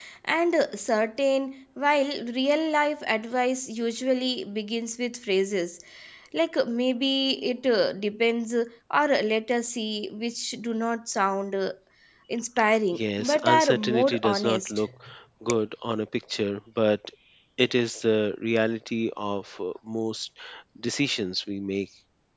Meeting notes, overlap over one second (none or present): present